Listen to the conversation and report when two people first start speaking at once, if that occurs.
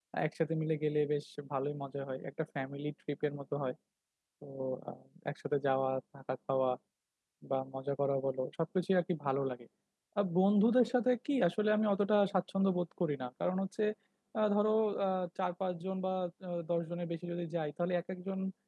none

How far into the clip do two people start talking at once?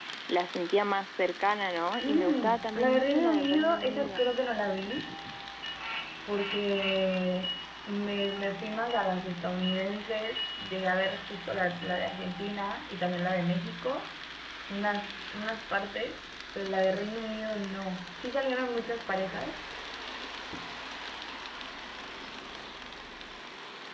2.0 s

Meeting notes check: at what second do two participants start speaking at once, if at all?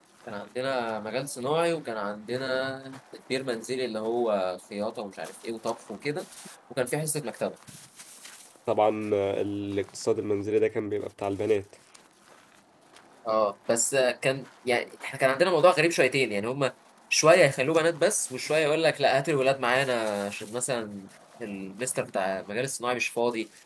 none

